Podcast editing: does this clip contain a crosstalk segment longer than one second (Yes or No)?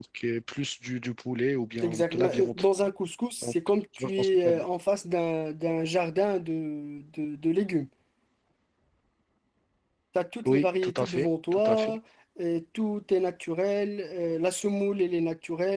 Yes